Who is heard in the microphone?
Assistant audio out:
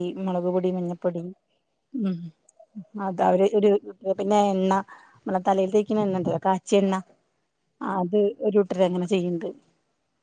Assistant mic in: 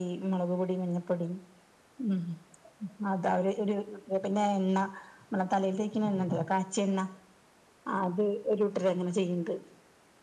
echo only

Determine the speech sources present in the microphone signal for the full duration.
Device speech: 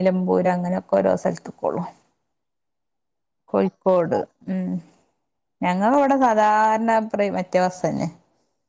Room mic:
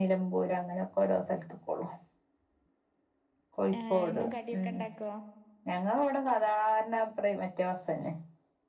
both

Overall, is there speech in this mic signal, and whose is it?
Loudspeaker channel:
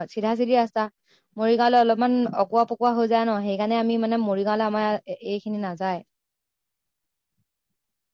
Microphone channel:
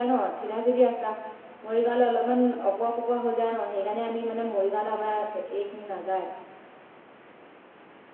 echo only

